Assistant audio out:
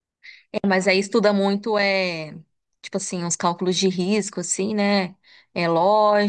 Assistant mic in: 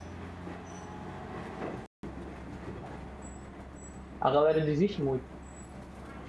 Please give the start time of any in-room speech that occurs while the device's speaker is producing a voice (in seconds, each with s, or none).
4.2 s